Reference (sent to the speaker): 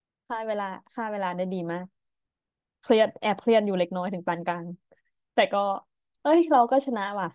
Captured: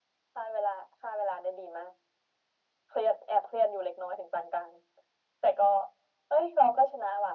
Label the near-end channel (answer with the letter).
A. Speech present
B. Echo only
B